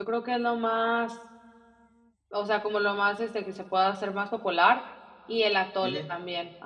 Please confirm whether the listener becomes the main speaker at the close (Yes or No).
No